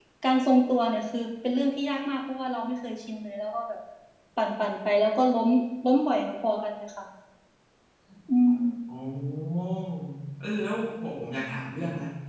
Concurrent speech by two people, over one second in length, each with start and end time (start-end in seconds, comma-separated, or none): none